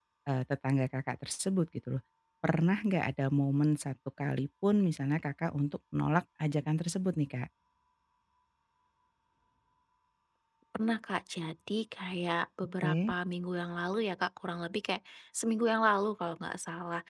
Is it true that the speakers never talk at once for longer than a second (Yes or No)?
Yes